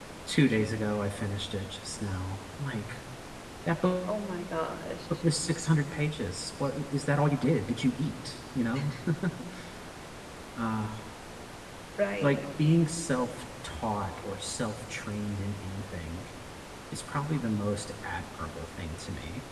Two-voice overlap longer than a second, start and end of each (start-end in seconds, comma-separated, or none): none